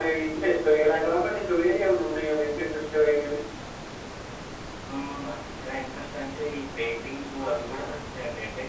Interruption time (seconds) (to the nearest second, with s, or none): none